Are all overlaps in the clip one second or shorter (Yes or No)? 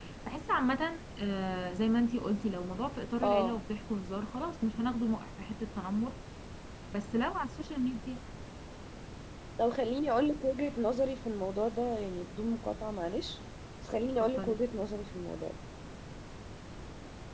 Yes